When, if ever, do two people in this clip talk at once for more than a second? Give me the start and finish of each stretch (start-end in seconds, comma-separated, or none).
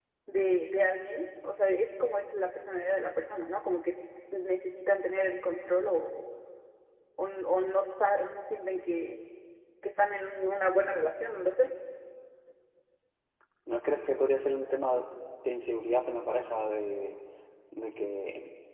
none